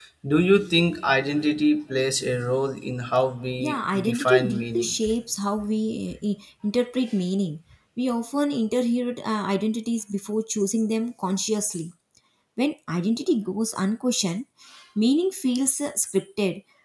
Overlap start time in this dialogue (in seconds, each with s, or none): 3.6 s